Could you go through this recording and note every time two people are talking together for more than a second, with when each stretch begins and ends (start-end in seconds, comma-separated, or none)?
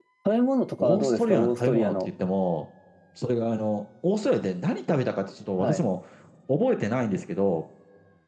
0.8-2.1